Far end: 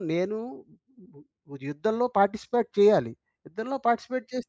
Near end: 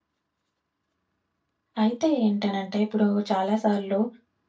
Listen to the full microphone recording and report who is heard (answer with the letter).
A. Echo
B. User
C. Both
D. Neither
B